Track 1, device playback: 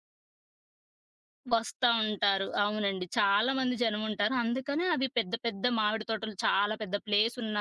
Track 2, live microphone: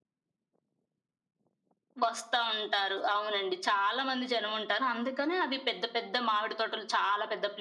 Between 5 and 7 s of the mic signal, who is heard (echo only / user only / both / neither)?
echo only